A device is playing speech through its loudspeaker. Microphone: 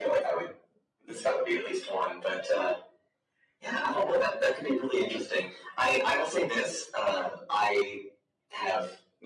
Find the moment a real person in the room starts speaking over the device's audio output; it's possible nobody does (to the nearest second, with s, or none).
none